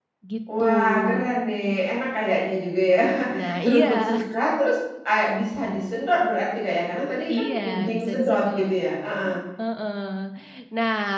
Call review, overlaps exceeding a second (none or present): present